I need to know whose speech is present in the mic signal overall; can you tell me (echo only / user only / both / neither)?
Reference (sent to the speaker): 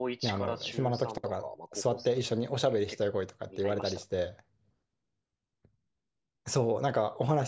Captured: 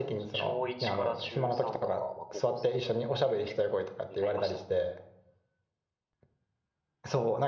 echo only